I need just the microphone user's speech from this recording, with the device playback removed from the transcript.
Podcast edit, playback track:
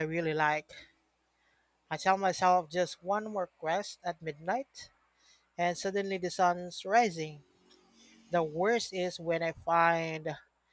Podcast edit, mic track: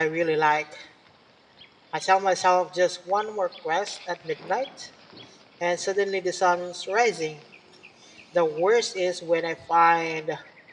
none

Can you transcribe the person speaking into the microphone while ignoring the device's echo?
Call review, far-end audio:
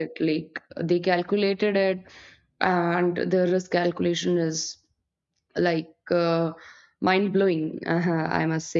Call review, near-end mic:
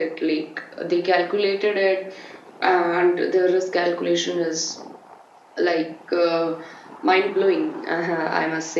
none

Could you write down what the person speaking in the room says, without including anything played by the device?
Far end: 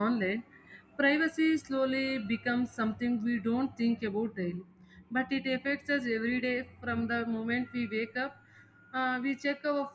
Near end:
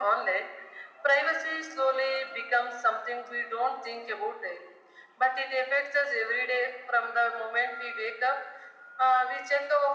none

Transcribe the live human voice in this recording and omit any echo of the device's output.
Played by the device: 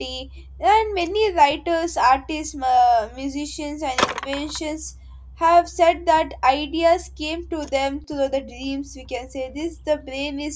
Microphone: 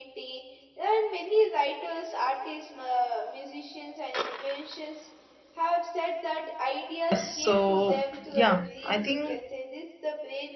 Yes, so yeah, I think

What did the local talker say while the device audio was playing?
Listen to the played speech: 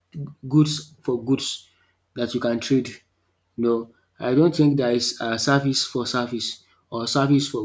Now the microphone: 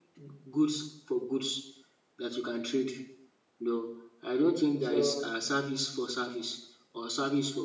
So

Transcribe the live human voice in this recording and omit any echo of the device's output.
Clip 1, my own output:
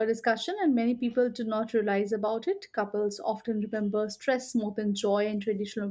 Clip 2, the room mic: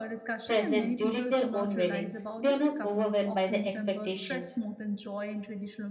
present during their own weddings they are not overwhelmed by the expectations

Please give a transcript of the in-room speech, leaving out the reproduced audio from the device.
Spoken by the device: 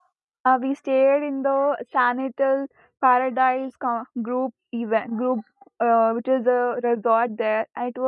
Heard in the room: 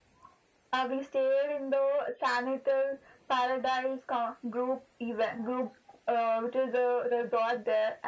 none

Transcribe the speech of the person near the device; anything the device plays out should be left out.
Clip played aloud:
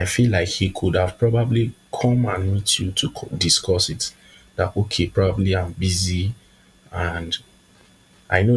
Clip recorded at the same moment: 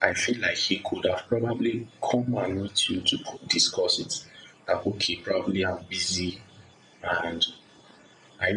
none

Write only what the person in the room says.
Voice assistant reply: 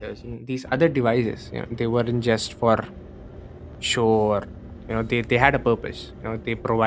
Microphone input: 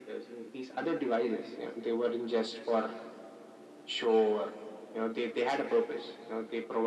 none

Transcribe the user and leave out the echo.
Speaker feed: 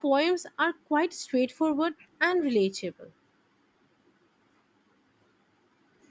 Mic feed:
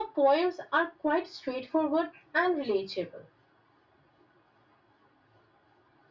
none

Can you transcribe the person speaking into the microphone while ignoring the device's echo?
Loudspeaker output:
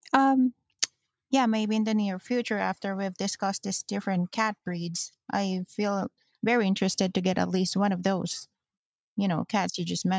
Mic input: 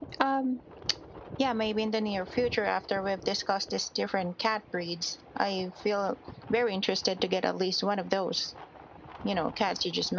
none

